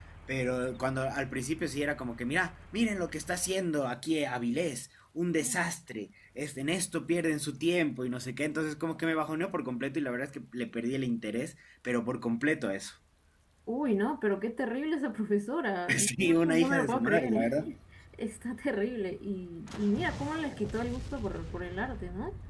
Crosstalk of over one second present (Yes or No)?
Yes